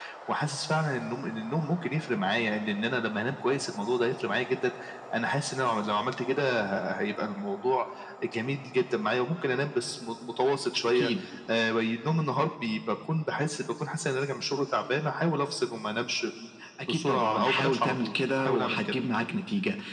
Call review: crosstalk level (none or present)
present